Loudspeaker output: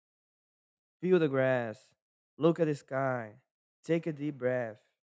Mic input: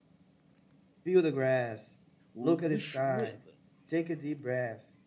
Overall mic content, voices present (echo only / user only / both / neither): both